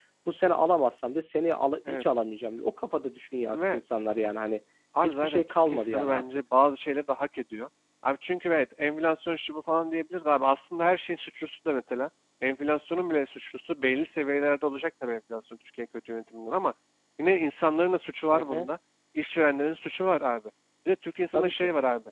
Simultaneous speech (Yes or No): Yes